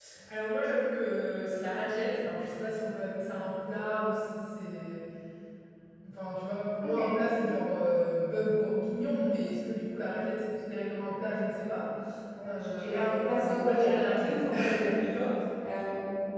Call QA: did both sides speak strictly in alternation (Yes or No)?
No